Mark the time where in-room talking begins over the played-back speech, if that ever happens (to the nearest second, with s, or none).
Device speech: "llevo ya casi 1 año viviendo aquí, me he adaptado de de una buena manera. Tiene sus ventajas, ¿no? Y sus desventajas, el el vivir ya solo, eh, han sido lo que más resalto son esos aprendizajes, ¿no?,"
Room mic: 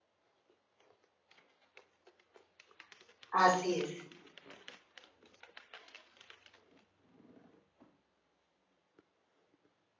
3 s